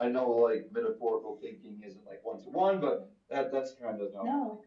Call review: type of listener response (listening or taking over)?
taking over